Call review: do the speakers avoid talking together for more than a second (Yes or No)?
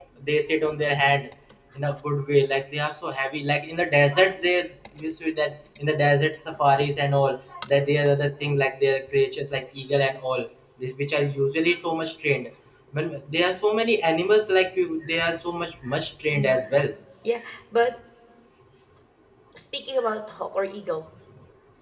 Yes